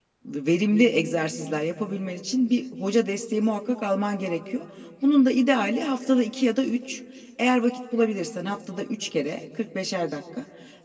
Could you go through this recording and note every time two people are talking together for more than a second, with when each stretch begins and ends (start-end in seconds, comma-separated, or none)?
none